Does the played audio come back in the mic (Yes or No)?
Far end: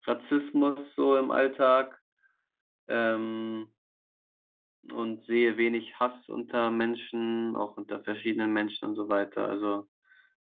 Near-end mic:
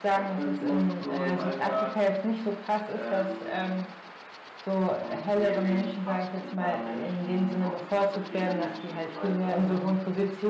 Yes